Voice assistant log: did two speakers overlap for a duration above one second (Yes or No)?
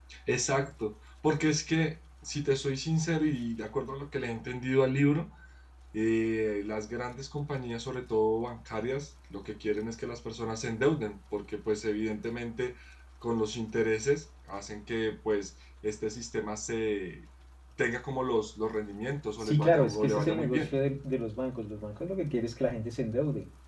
Yes